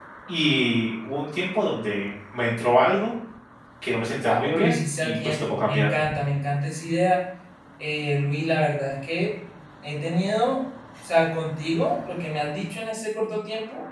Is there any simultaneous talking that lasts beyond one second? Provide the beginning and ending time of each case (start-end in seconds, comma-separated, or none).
4.2-5.9